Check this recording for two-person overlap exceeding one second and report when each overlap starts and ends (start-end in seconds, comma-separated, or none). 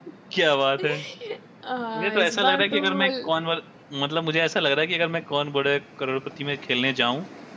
2.0-3.3